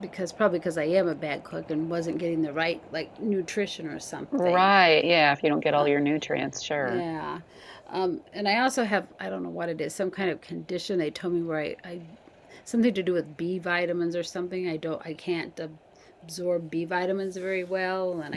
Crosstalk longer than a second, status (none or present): none